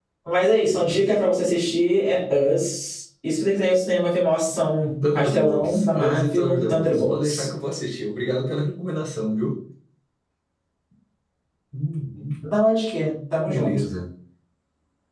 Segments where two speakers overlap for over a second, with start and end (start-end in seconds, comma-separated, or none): 5.2-7.5